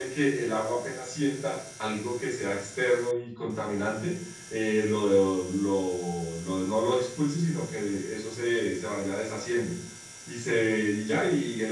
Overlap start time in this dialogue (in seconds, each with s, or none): none